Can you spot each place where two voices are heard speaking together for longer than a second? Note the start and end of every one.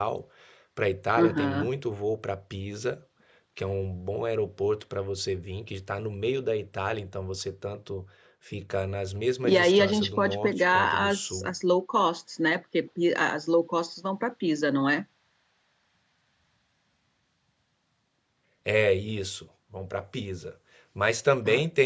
9.4-11.5

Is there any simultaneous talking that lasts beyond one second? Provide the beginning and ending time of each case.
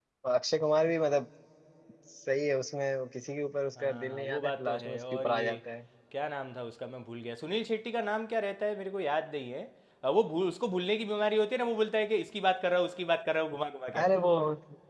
3.8-5.6

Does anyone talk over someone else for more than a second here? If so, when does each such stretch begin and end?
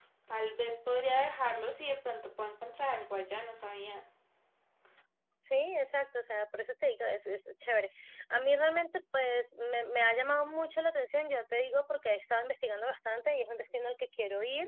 none

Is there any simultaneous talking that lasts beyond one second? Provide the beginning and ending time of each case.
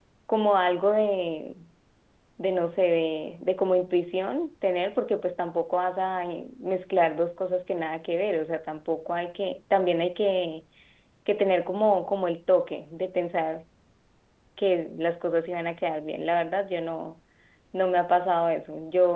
none

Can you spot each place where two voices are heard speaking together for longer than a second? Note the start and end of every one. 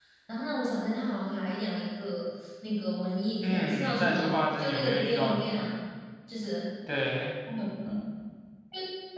3.4-5.6

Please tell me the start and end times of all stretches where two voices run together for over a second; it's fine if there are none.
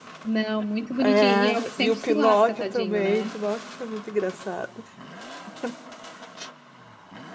1.0-3.4

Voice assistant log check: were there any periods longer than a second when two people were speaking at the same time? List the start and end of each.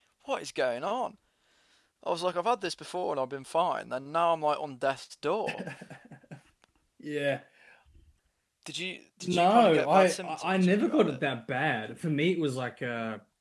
9.2-11.2

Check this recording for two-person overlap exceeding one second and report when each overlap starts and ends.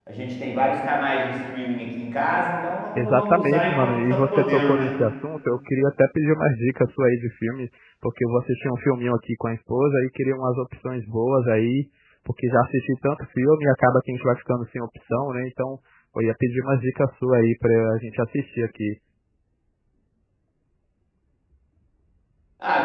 3.0-4.9

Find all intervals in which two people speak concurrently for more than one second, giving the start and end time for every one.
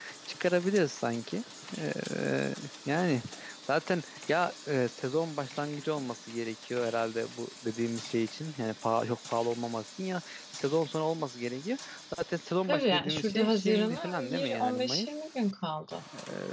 12.7-15.1

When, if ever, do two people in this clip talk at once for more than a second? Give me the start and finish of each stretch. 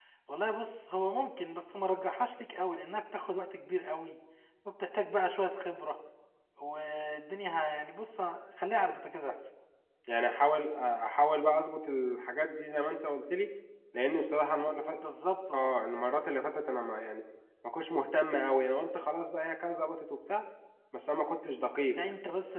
none

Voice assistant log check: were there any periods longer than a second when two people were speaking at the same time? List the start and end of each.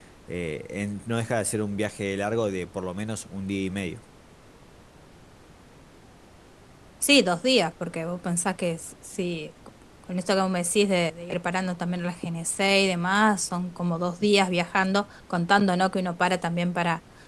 none

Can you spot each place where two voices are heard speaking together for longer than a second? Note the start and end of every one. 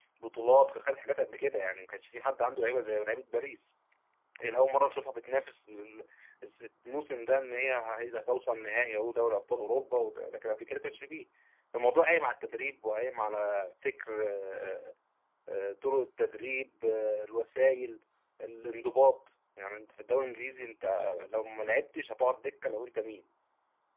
none

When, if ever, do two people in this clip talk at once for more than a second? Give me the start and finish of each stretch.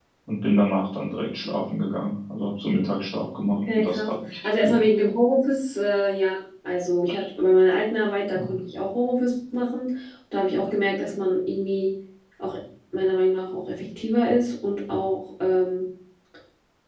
3.5-4.8

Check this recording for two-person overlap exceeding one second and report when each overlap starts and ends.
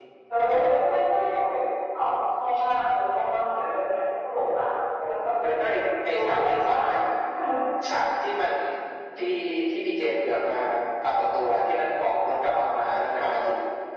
5.7-7.0

